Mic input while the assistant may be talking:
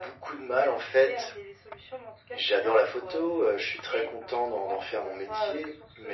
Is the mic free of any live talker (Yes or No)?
Yes